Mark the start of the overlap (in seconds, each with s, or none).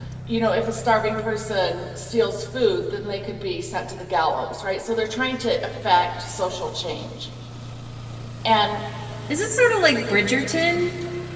none